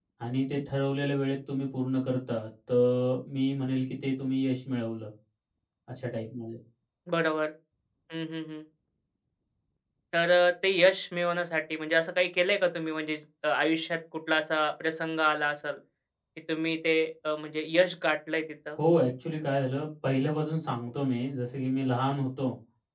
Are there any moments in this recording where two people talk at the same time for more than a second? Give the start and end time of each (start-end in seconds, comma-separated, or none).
none